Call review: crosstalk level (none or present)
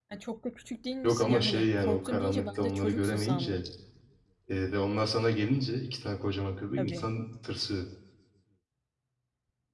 present